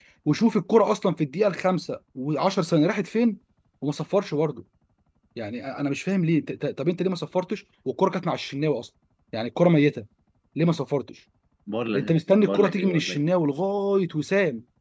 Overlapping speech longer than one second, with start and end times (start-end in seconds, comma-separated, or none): 11.9-13.2